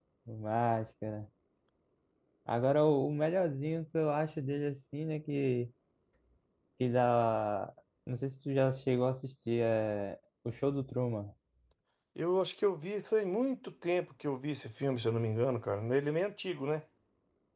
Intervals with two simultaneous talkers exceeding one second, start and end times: none

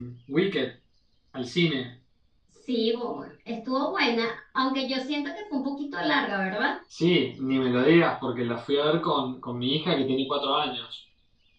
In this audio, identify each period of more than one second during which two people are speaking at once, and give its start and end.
none

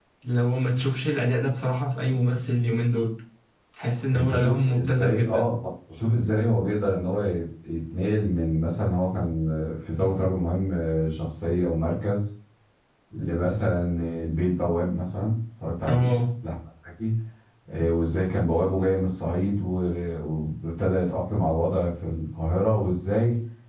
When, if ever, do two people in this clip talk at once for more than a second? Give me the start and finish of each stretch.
4.1-5.5

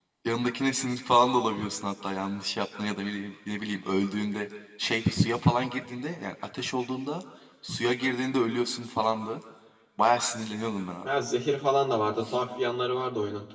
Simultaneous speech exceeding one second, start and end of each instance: none

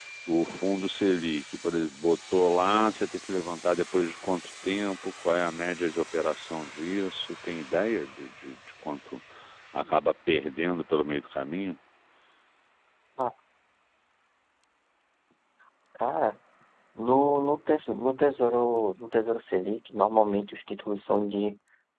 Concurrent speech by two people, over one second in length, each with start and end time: none

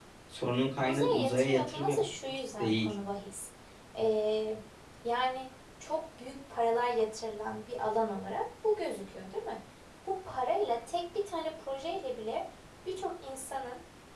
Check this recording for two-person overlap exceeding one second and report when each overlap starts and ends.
0.8-2.9

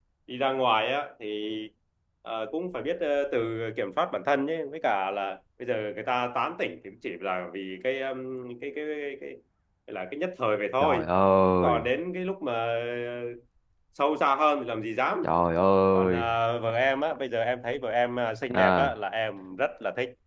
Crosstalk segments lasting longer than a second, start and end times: none

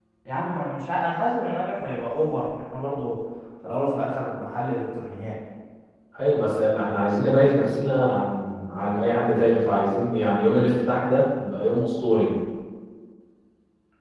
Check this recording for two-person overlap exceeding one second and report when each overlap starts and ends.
none

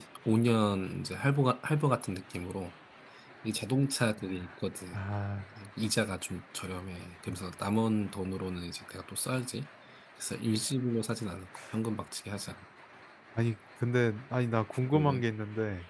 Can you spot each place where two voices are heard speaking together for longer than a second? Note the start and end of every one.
none

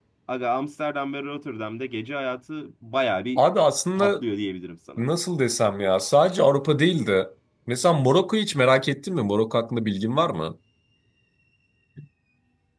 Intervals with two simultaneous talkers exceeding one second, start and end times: none

